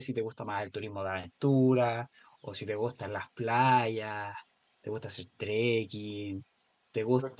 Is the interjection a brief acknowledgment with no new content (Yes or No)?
No